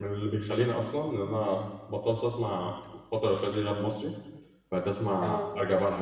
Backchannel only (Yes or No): Yes